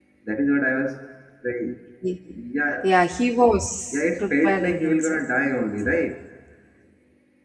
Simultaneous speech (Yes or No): Yes